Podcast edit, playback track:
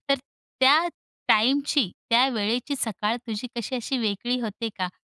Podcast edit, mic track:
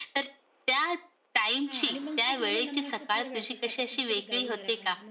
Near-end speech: present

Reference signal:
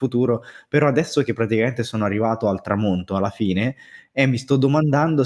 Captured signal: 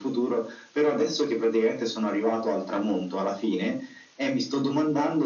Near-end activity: none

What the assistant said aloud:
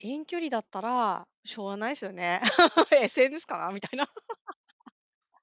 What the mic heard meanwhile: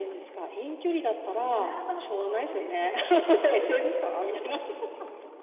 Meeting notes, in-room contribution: present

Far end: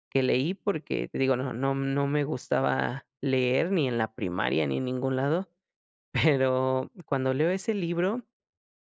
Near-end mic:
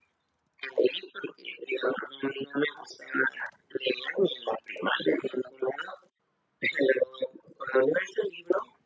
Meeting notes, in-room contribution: none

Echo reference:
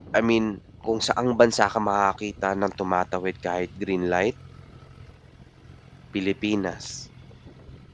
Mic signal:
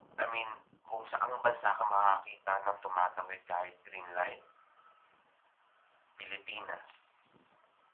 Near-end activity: none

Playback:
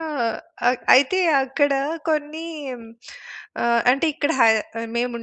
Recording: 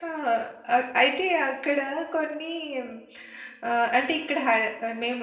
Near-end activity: none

